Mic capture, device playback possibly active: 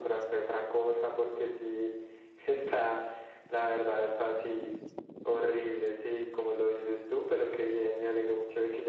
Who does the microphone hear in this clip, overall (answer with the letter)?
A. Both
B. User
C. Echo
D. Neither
C